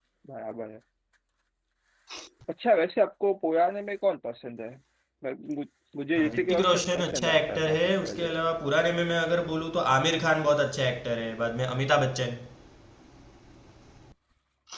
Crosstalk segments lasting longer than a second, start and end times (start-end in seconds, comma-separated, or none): 6.2-8.3